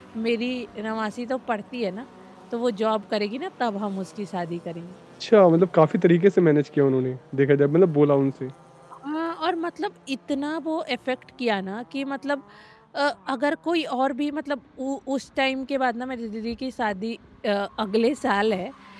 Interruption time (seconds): none

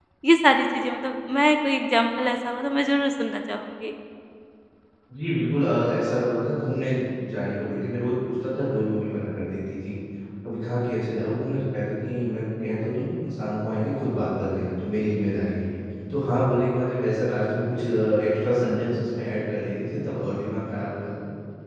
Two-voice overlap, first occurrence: none

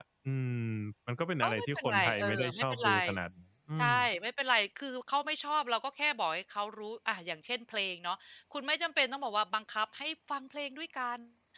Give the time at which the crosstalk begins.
1 s

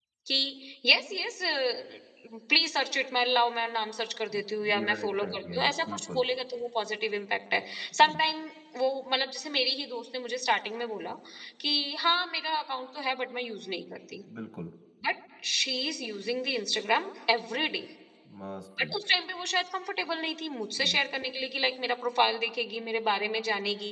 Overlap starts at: 5 s

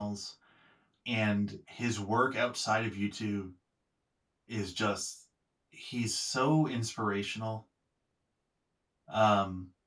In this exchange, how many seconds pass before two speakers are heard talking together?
none

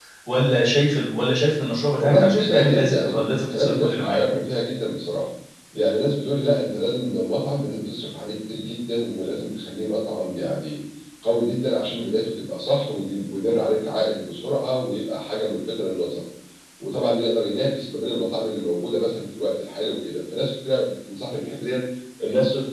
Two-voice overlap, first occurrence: 2 s

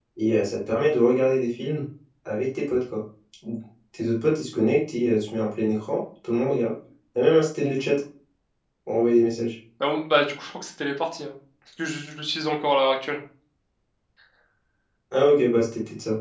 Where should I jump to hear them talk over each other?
none

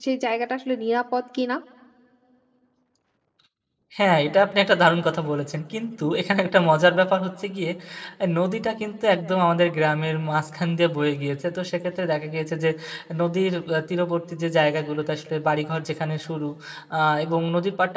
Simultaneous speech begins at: none

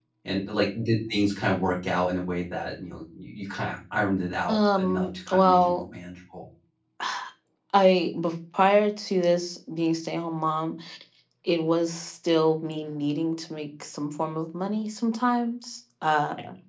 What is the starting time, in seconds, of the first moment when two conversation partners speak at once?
4 s

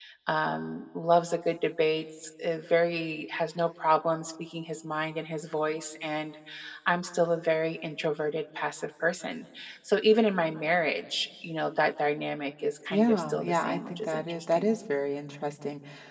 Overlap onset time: 13 s

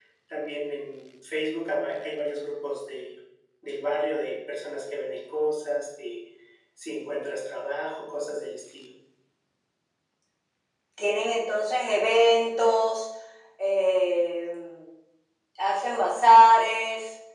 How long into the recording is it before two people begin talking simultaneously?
none

